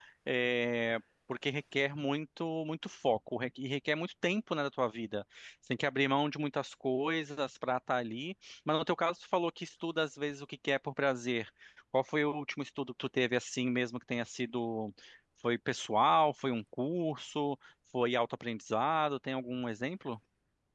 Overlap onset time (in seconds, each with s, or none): none